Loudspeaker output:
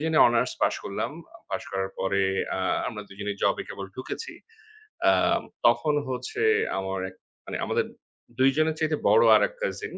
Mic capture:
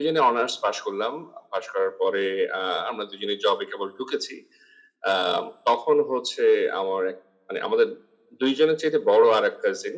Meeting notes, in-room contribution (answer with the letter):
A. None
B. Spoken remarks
A